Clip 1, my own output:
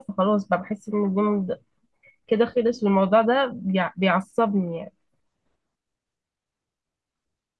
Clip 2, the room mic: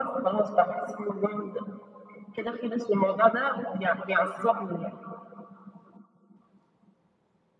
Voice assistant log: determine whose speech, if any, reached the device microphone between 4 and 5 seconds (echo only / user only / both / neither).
echo only